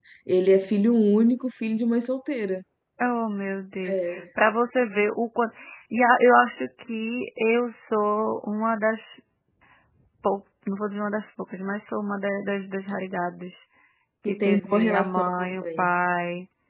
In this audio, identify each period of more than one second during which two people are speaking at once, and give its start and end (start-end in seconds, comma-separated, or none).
14.3-15.9